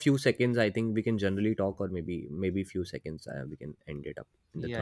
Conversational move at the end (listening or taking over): taking over